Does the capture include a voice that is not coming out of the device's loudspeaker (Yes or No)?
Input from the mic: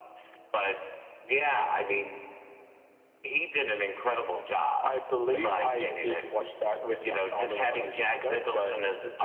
No